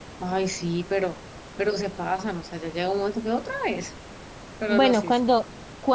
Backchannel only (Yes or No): No